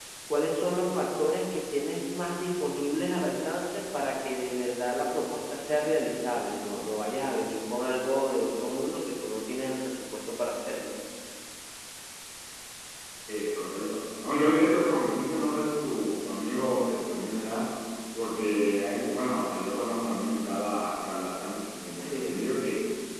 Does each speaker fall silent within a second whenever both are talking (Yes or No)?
Yes